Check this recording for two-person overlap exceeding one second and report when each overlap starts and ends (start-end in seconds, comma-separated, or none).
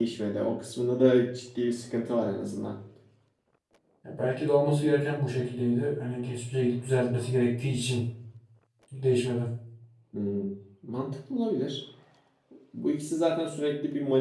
none